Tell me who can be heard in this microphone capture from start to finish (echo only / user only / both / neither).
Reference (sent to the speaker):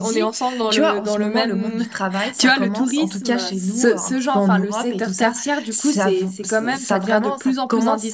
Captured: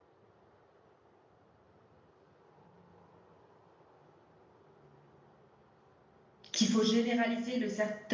user only